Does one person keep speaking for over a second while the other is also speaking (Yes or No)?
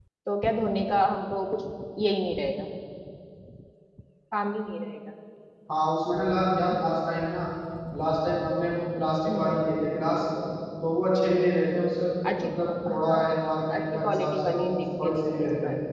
Yes